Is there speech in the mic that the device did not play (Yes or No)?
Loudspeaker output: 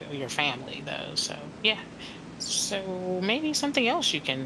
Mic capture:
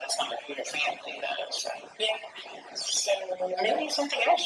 No